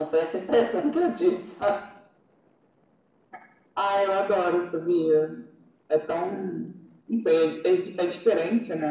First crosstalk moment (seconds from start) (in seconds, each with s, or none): none